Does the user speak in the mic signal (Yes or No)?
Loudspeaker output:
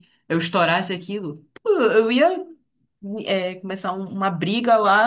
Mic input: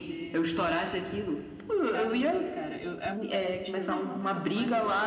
Yes